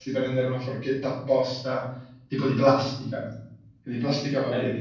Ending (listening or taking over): taking over